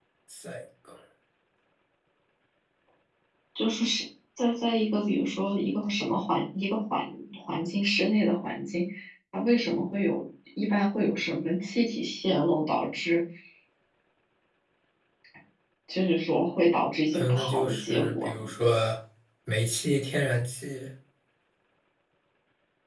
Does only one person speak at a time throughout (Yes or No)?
No